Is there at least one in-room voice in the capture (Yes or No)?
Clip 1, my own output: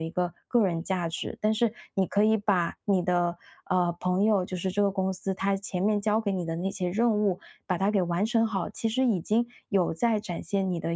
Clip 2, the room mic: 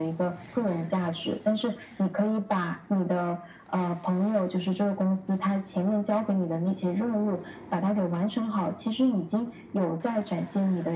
No